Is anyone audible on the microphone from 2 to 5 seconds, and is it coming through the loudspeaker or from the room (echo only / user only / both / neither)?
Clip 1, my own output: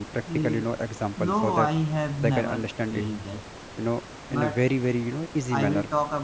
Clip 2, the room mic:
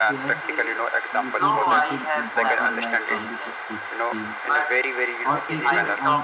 both